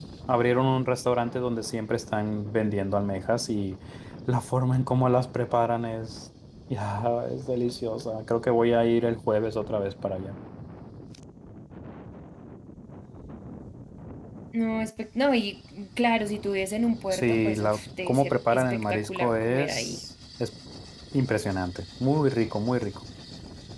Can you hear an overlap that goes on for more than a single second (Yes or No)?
Yes